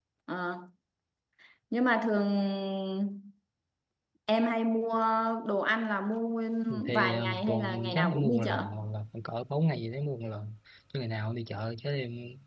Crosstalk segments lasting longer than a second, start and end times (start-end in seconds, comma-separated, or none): 6.9-8.6